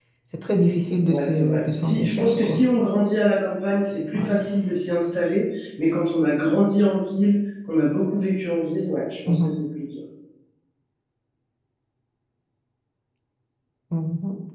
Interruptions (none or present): present